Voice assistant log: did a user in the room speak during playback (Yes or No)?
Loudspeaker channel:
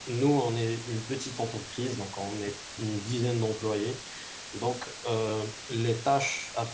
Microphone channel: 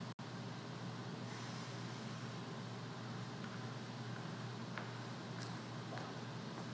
No